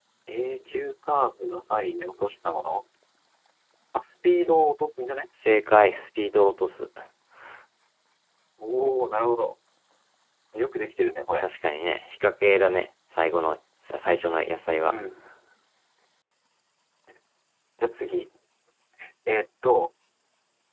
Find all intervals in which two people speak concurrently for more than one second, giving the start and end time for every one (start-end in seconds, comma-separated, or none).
none